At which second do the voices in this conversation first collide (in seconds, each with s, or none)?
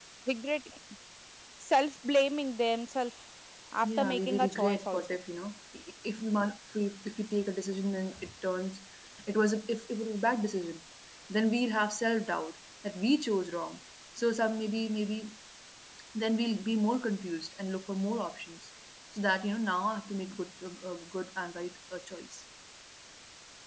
3.8 s